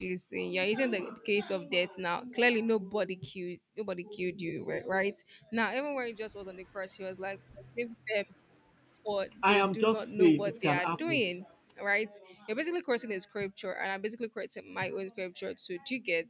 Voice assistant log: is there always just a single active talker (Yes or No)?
No